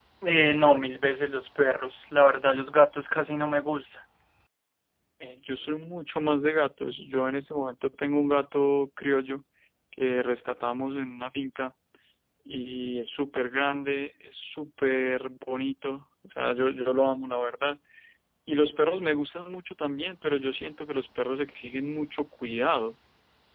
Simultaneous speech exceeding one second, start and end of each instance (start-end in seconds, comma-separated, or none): none